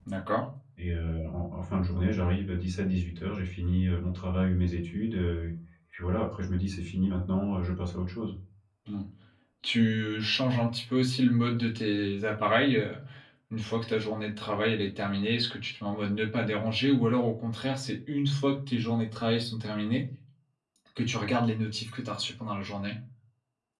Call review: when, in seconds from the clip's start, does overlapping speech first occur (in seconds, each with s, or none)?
none